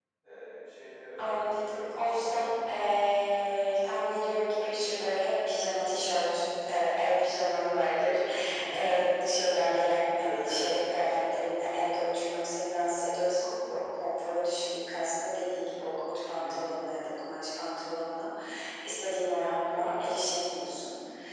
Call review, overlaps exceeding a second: present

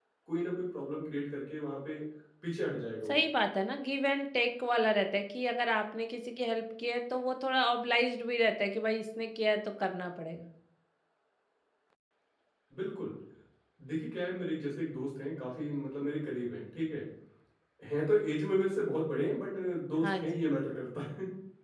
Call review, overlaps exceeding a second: none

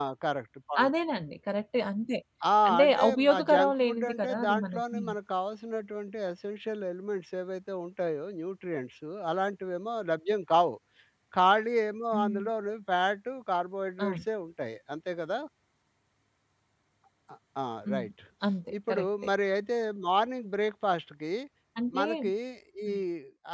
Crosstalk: present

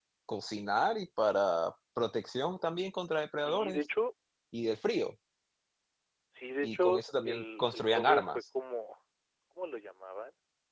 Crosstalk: present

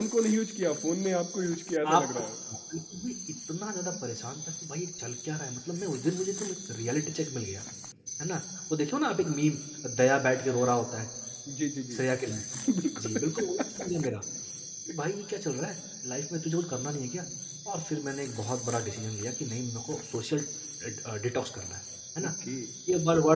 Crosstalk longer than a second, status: none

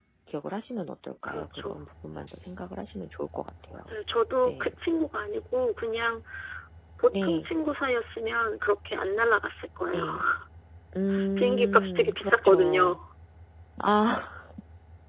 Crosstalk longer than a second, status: present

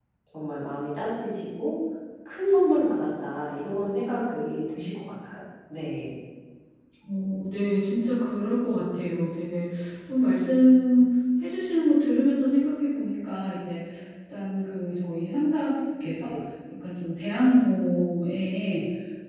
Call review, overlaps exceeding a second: none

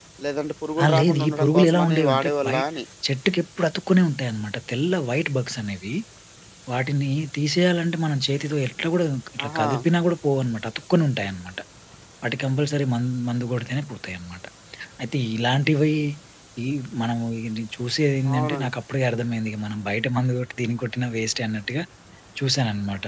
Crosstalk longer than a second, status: present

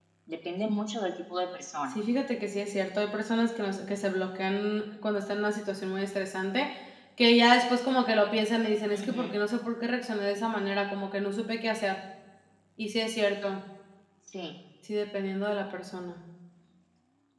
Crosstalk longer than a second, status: none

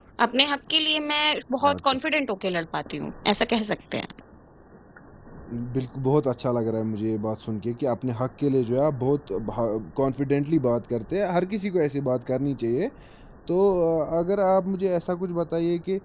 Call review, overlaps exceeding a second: none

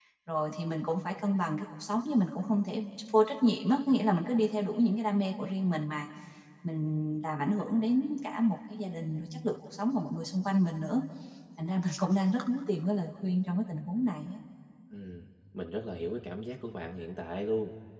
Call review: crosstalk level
none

